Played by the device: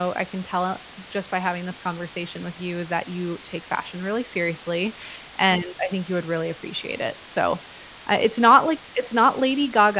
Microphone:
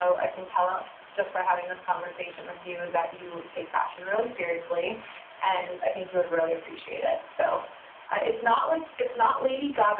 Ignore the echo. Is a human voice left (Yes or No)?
No